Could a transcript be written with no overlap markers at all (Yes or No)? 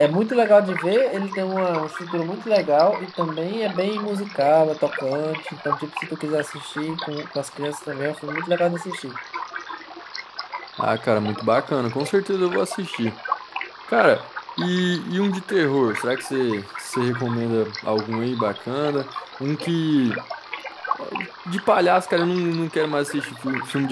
Yes